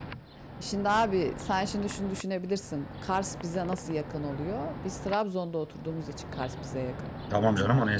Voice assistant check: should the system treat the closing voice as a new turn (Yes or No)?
Yes